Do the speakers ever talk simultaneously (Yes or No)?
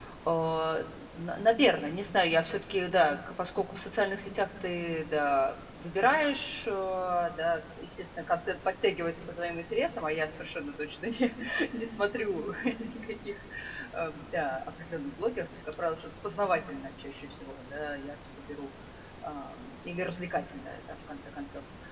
No